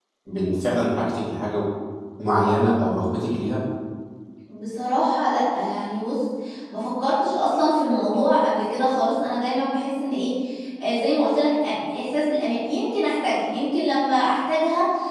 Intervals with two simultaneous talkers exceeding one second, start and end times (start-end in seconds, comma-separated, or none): none